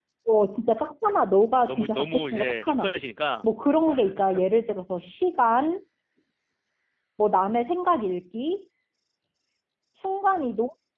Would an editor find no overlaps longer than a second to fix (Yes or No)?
No